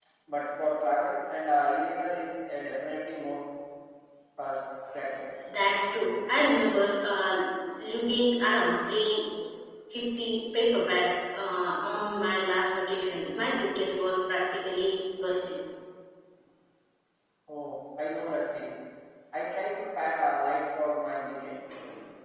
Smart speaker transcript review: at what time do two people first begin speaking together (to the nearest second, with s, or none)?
none